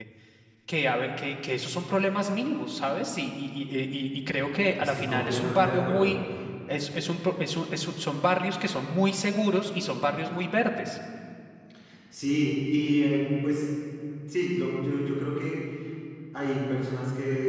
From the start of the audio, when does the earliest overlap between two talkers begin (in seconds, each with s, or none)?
4.8 s